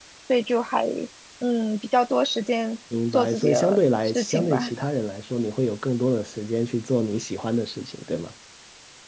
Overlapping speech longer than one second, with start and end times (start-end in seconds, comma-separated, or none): 3.1-4.6